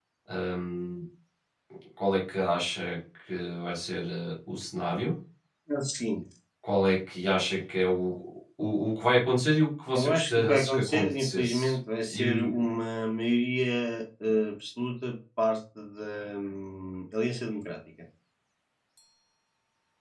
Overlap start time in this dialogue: 9.9 s

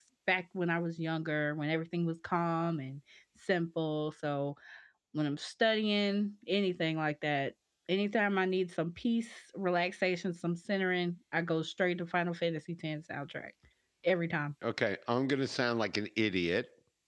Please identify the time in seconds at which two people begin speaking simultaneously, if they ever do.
none

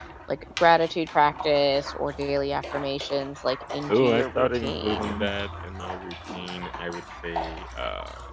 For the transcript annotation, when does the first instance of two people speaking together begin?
3.9 s

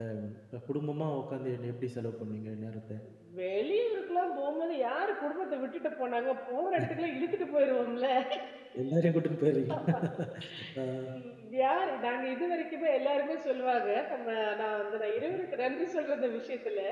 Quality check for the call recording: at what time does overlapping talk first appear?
none

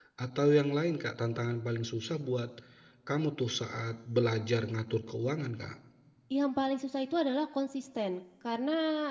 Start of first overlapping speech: none

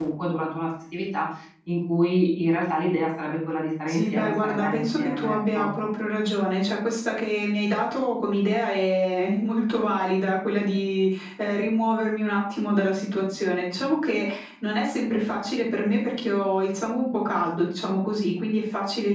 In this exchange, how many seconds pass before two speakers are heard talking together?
3.9 s

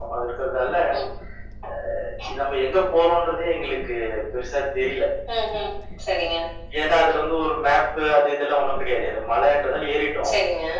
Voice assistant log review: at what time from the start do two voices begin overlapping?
none

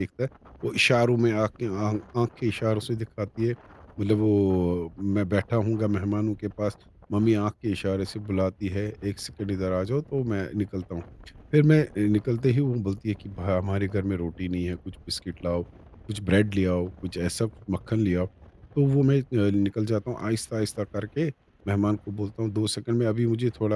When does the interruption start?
none

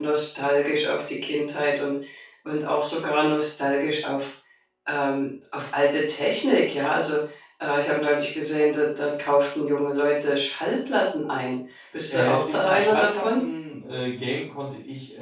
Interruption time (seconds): 12.1 s

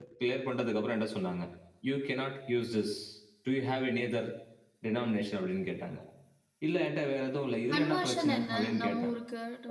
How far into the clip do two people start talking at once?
7.7 s

